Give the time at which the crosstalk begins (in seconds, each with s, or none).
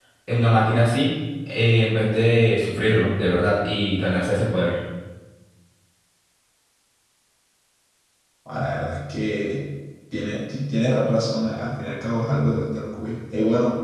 none